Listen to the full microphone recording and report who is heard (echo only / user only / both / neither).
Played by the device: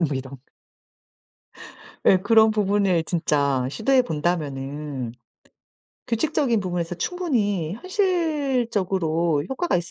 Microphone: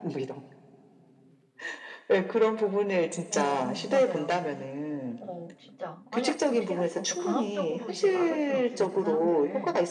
both